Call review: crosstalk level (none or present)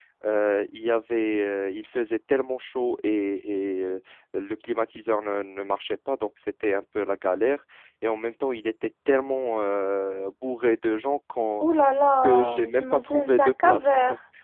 present